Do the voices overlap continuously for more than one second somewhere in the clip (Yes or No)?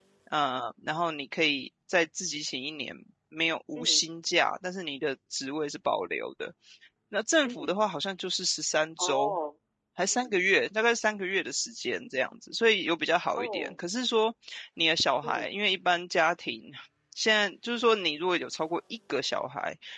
No